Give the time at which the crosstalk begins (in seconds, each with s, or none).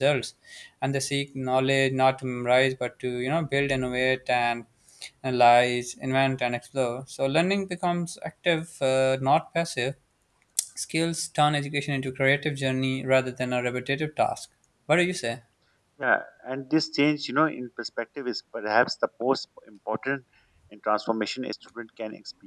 none